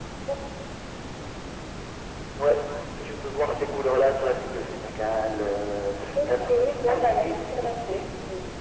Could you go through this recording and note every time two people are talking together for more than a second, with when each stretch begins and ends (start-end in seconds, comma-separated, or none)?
6.8-8.0